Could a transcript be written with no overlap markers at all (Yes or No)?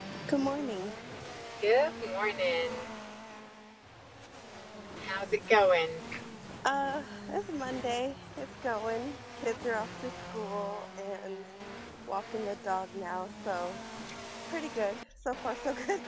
Yes